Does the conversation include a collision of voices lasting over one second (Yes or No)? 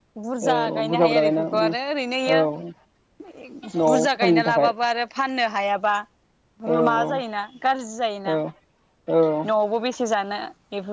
Yes